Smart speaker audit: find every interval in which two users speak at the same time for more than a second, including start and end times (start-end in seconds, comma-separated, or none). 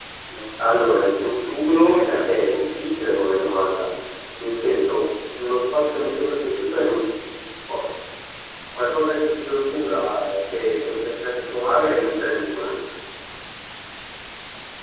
1.2-3.0